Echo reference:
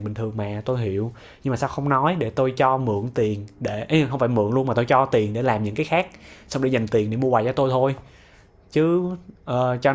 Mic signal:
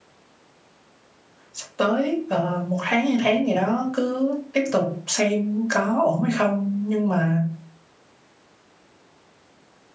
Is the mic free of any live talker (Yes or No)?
No